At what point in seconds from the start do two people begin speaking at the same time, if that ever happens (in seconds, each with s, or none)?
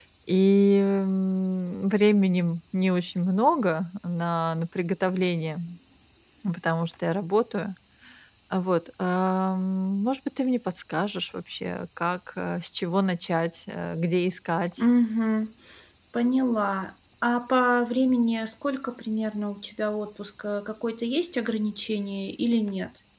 none